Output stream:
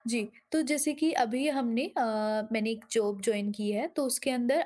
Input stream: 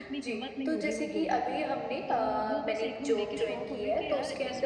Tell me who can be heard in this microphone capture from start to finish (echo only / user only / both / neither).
both